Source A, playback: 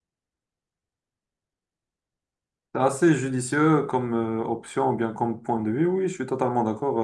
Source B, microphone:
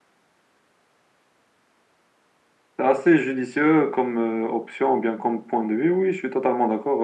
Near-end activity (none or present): none